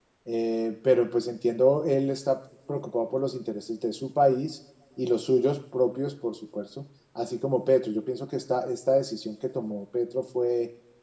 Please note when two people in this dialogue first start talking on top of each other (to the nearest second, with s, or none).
none